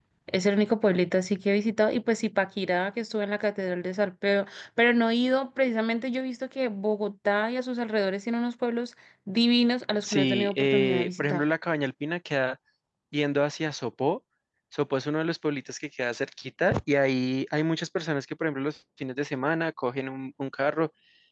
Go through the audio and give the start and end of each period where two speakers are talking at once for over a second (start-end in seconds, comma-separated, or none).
10.0-11.4